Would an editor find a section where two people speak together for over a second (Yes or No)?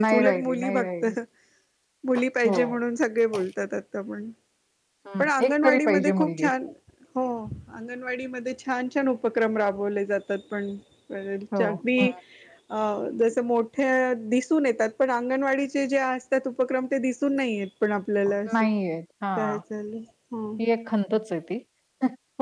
Yes